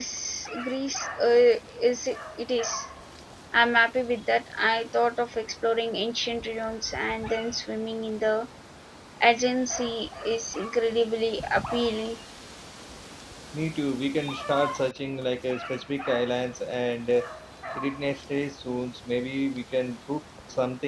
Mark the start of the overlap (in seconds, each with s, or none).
none